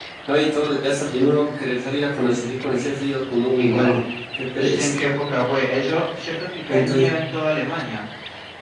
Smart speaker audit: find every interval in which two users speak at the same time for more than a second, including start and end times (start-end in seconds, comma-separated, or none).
none